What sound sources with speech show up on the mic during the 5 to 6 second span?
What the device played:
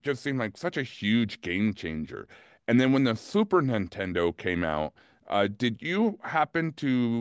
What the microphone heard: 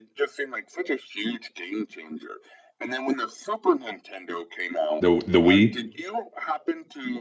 both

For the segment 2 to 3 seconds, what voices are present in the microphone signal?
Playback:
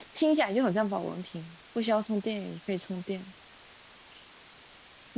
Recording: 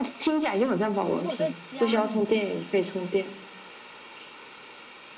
both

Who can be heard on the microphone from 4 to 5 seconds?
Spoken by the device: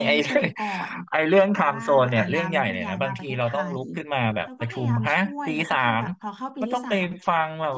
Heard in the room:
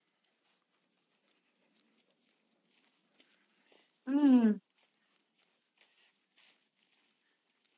user only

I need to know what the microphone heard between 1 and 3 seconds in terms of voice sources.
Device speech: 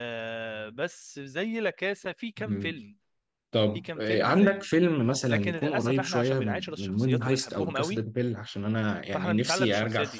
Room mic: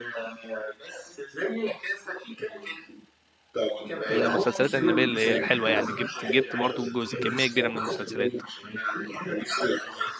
echo only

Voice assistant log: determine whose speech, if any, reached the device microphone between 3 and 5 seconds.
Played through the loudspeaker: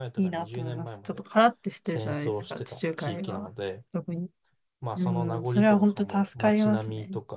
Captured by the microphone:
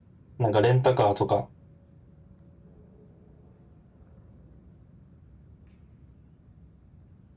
neither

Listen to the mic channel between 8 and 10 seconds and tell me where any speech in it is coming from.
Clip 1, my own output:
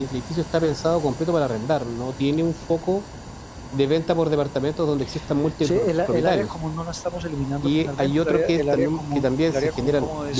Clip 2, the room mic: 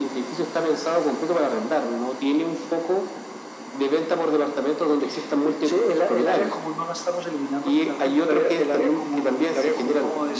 echo only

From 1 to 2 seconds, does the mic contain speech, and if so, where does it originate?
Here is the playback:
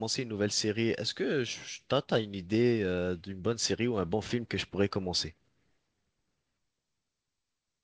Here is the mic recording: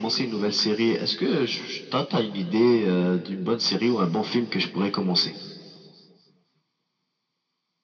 echo only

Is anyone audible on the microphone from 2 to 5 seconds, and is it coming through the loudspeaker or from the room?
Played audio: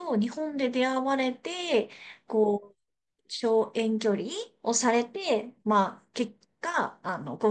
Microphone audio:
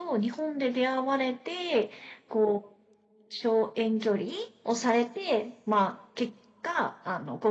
echo only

